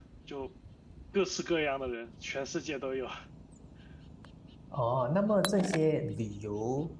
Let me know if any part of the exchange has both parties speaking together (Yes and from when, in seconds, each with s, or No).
No